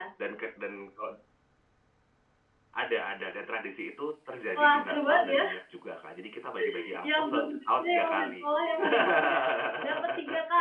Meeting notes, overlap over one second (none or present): present